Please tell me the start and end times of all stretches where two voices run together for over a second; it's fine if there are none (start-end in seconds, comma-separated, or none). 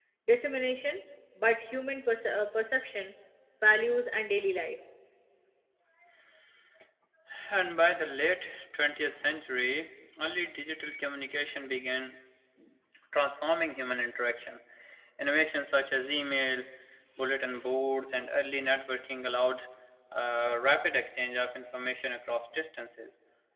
none